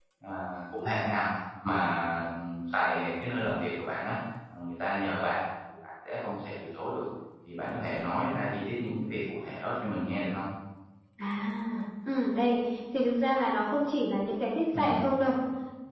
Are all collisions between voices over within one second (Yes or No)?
Yes